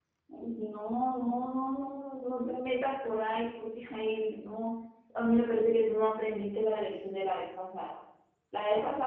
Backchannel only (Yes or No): Yes